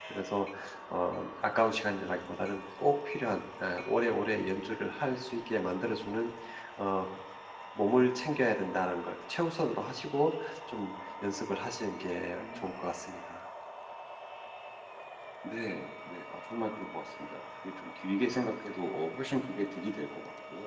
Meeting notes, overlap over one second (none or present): none